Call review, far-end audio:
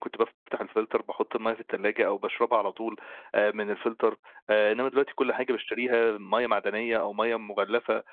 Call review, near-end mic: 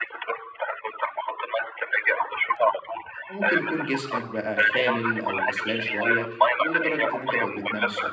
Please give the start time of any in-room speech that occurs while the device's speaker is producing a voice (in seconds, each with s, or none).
3.3 s